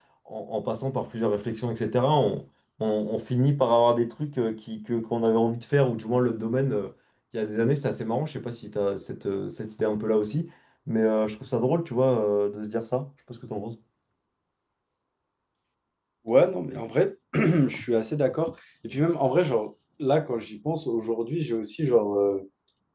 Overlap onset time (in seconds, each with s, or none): none